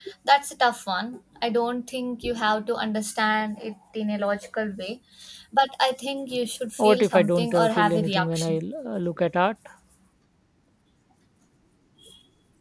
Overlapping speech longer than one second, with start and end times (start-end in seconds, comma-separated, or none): 6.8-8.6